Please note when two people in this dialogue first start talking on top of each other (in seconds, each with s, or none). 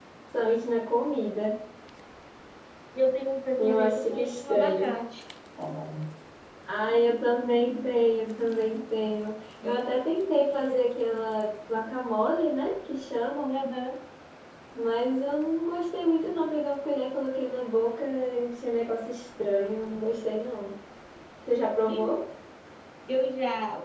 3.6 s